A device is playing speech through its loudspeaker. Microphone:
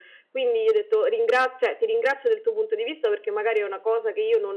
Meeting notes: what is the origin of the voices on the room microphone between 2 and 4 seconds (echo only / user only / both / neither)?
echo only